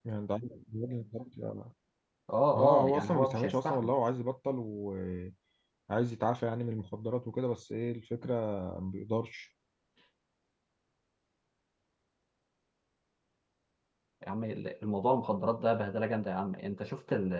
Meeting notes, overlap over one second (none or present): present